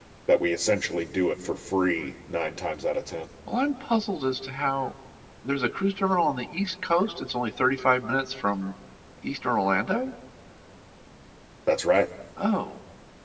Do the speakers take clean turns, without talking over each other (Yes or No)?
Yes